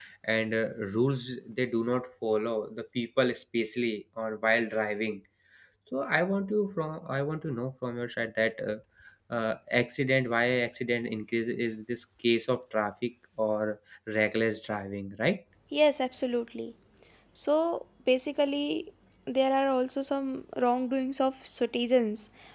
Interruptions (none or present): none